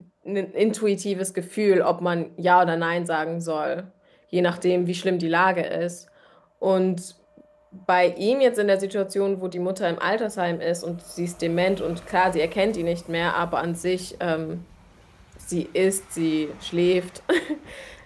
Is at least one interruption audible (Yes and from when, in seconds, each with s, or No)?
No